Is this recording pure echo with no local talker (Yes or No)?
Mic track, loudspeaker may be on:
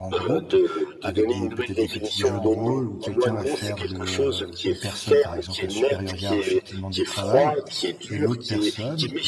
No